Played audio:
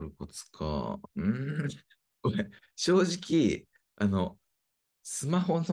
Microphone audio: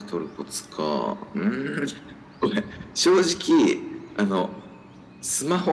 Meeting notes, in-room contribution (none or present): none